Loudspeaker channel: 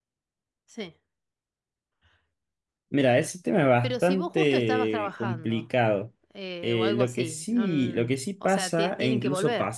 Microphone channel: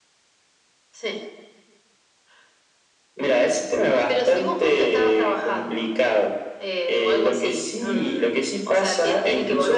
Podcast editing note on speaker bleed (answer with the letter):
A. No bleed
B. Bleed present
B